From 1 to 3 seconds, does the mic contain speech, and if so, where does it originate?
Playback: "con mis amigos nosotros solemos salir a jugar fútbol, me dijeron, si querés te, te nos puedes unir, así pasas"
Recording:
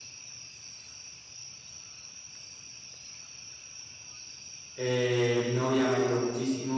neither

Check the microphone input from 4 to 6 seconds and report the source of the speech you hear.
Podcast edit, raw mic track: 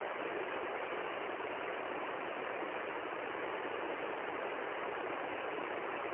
neither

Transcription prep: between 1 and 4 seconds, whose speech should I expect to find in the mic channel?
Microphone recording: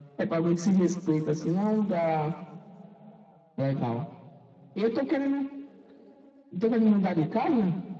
echo only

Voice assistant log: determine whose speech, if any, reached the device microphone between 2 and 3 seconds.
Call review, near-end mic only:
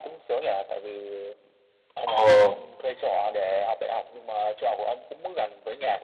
both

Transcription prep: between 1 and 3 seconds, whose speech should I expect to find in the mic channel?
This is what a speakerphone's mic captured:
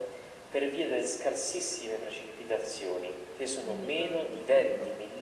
echo only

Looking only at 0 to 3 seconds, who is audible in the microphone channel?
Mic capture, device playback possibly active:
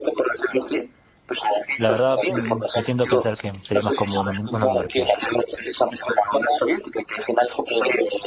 both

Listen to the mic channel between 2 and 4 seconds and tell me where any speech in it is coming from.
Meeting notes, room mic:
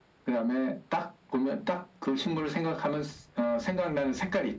echo only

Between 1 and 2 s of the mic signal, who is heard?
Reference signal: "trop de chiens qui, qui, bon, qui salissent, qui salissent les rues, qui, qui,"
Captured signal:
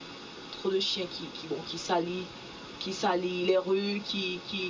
echo only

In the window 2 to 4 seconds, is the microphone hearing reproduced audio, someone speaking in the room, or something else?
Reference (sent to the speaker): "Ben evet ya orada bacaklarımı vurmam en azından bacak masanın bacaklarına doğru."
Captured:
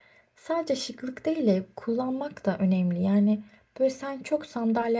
user only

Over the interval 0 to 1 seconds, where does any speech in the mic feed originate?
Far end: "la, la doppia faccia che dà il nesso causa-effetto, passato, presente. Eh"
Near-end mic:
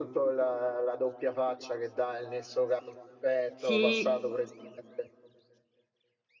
echo only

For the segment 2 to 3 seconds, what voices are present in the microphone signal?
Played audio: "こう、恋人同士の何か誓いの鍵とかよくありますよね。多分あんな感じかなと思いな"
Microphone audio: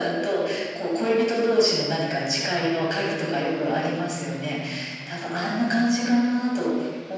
echo only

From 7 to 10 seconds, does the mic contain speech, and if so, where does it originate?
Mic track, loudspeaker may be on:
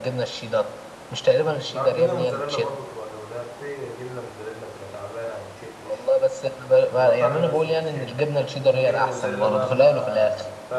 both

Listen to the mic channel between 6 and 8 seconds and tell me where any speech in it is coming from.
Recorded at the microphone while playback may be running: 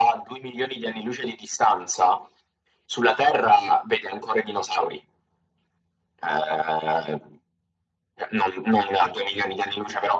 echo only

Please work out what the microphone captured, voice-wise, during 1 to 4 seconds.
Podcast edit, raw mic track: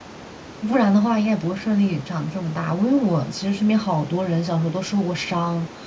user only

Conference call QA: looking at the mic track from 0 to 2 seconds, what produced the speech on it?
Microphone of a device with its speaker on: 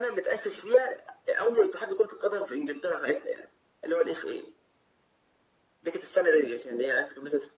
echo only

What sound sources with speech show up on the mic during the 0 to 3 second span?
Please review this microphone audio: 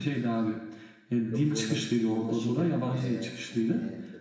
echo only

